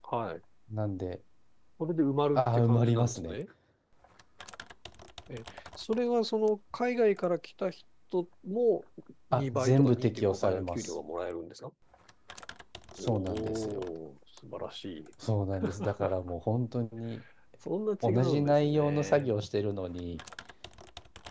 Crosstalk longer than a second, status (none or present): present